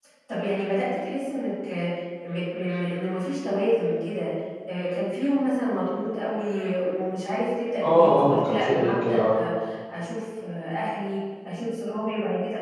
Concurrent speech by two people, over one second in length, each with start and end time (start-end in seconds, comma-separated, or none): 7.8-9.2